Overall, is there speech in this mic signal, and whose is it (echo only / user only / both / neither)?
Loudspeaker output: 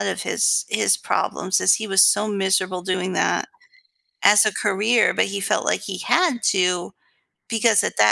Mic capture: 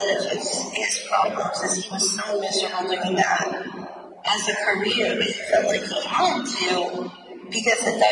echo only